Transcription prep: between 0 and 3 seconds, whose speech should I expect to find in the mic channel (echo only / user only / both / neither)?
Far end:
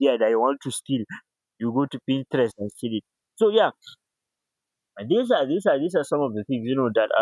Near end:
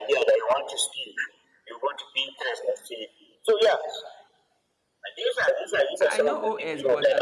echo only